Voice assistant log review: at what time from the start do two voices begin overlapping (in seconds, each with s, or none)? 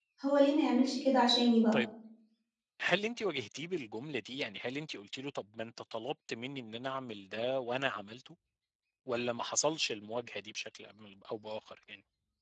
none